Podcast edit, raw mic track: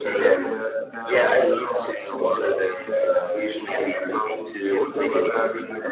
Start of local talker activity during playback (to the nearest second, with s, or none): none